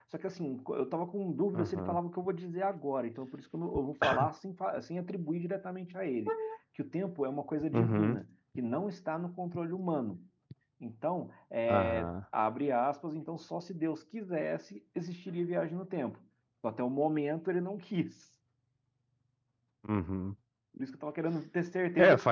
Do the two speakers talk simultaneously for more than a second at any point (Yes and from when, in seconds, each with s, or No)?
No